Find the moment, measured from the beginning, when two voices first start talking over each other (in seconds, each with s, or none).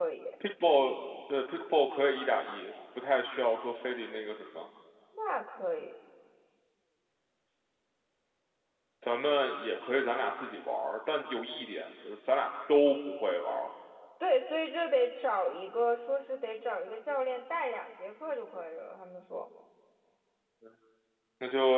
none